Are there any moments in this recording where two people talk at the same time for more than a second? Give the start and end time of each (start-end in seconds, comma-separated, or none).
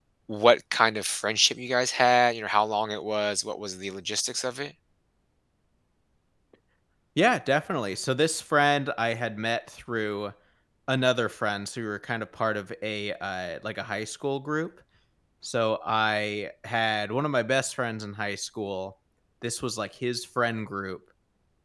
none